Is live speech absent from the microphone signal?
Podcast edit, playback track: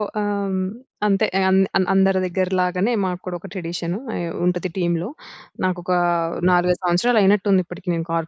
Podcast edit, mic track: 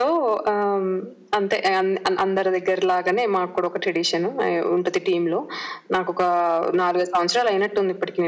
Yes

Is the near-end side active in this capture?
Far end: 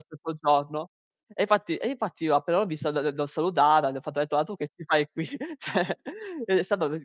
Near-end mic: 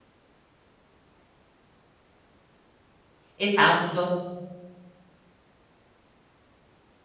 Yes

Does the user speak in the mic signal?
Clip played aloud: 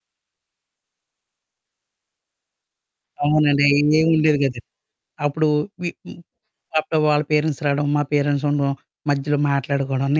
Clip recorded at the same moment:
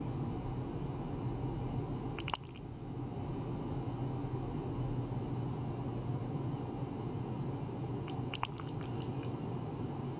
No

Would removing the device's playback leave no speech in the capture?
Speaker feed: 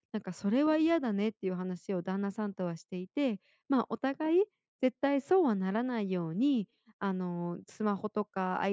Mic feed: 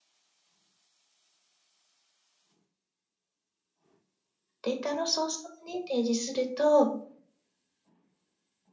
No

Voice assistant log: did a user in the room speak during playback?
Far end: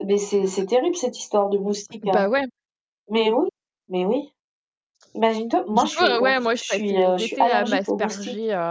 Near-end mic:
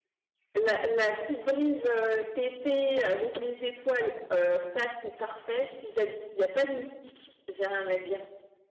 Yes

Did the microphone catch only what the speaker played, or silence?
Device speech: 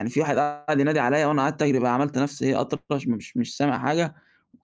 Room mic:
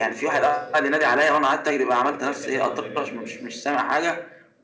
No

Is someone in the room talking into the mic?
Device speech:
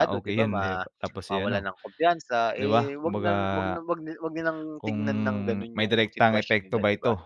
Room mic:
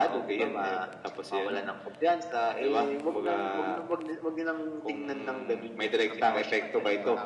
Yes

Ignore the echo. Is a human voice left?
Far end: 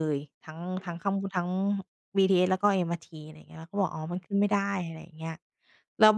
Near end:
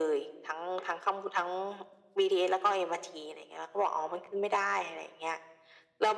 No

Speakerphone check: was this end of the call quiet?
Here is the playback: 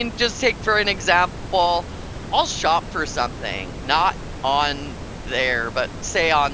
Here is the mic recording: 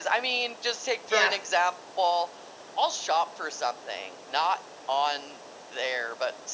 No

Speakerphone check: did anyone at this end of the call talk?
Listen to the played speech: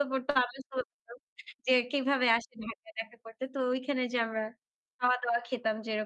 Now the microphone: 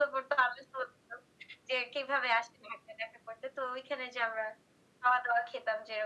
No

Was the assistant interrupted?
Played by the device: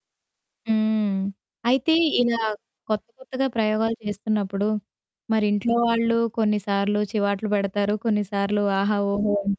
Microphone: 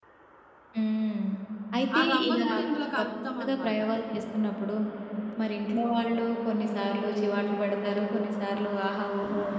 Yes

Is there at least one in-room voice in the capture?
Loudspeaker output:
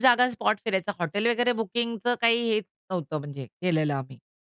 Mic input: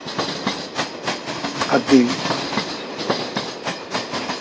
Yes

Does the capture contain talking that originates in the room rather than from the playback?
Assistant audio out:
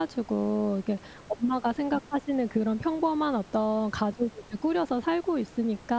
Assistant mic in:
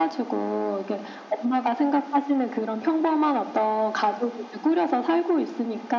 No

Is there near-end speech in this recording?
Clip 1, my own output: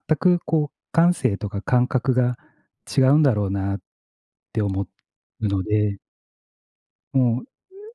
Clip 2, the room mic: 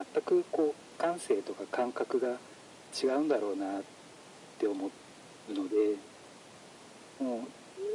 No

